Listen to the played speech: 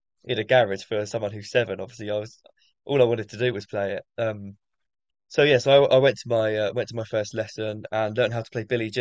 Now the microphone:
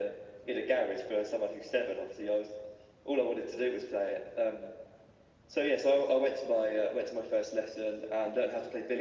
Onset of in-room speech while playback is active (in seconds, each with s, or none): none